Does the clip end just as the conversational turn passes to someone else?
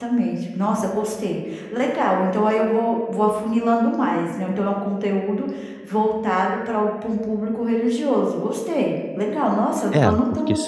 Yes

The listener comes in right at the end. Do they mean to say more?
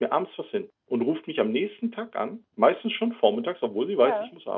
No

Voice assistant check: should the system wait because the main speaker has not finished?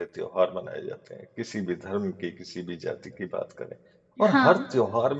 Yes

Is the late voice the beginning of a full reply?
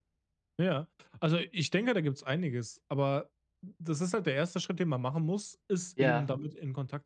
No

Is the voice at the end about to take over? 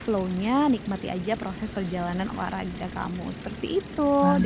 No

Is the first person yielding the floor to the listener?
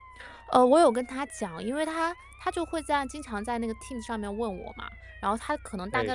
No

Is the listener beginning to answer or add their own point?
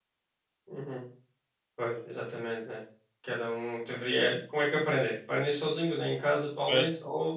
No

